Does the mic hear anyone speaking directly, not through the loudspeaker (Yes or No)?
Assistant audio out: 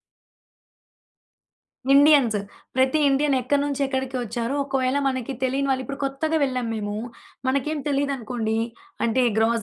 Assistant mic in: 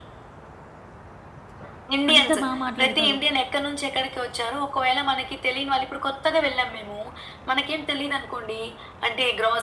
Yes